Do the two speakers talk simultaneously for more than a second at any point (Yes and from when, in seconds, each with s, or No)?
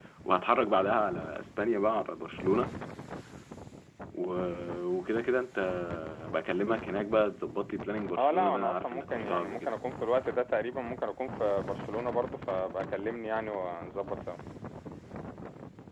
Yes, from 8.2 s